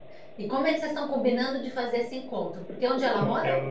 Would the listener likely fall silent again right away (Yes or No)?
No